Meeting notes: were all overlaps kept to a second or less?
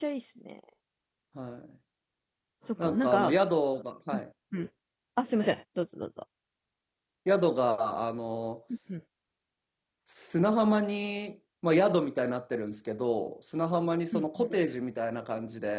Yes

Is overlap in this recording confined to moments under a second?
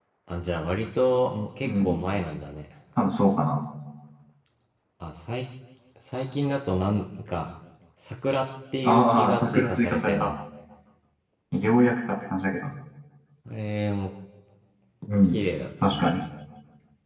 No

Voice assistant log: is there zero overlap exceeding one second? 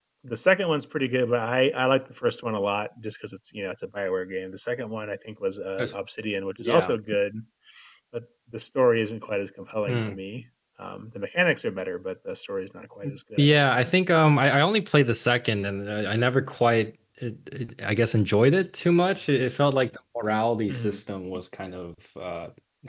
Yes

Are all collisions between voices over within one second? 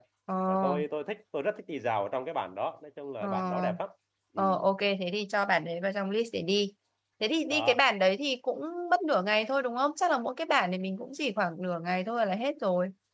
Yes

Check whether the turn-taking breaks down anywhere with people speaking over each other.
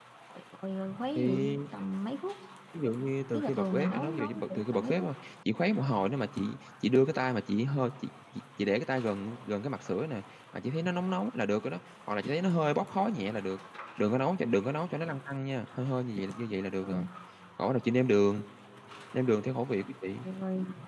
Yes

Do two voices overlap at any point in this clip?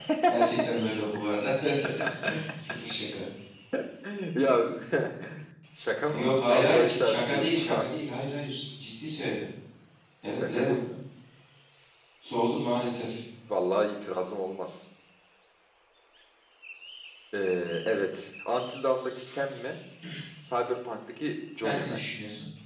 Yes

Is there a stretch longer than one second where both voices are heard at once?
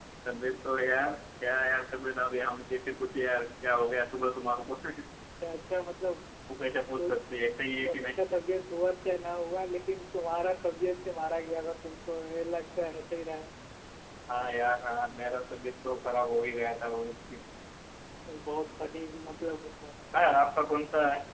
No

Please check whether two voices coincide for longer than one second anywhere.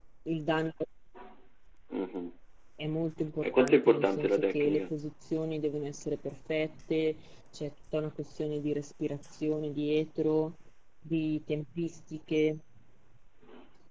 Yes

